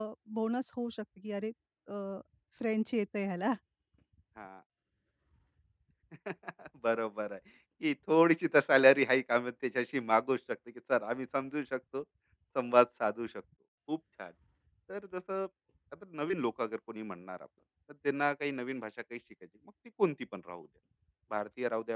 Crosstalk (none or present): none